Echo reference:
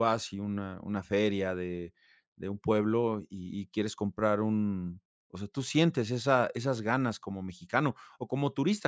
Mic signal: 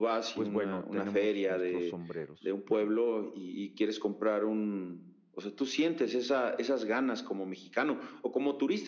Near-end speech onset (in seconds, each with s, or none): 0.3 s